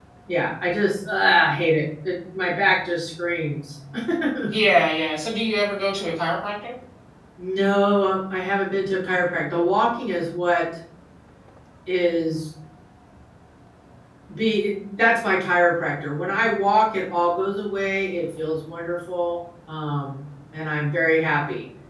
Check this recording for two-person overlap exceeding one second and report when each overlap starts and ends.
none

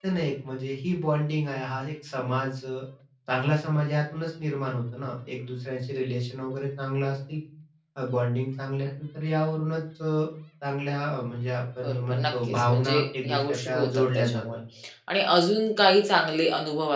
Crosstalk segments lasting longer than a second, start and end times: 11.8-14.4

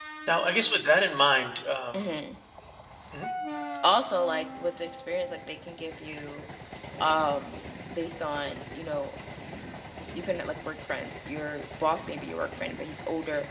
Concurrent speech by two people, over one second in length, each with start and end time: none

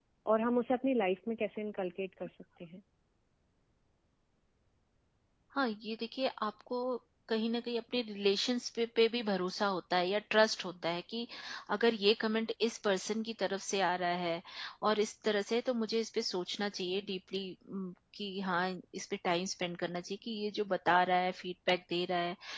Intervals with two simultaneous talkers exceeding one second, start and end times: none

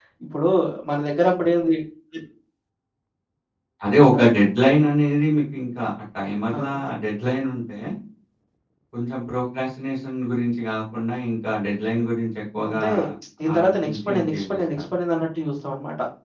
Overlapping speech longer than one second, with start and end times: 13.6-14.8

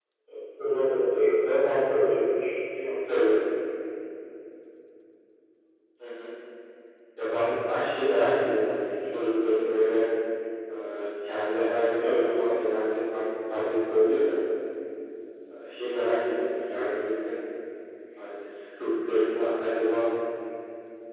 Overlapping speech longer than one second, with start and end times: none

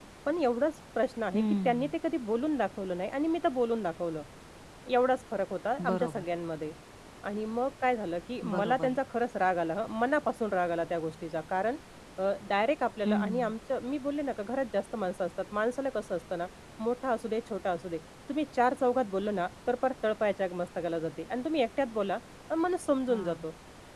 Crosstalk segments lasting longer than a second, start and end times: none

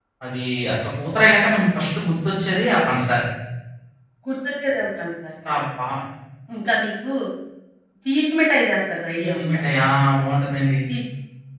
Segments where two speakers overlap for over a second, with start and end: none

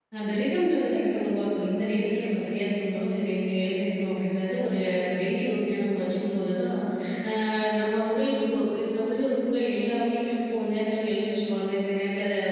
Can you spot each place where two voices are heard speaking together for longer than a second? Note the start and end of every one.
none

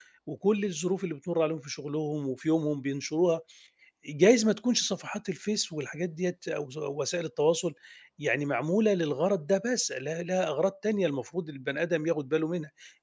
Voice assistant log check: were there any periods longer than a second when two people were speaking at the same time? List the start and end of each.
none

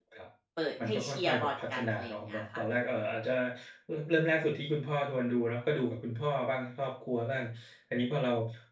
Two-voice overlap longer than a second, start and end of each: 0.9-2.4

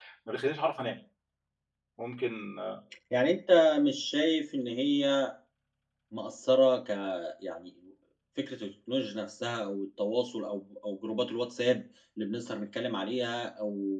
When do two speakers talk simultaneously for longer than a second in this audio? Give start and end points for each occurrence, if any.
none

